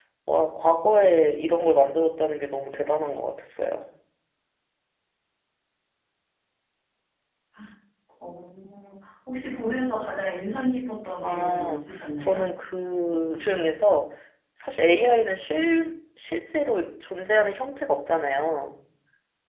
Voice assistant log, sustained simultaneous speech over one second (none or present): present